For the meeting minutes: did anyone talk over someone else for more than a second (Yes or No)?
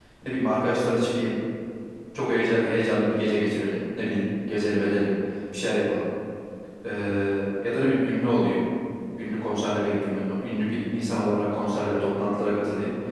No